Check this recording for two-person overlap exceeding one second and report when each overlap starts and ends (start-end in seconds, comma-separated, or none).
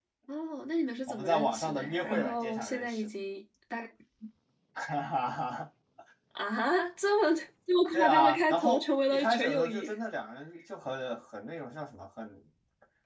1.1-3.1, 7.9-9.9